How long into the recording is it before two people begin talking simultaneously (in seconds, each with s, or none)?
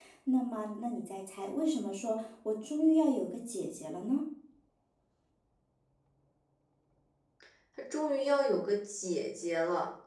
none